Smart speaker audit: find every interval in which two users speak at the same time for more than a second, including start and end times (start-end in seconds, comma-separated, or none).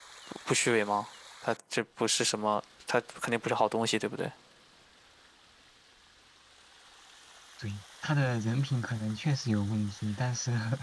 none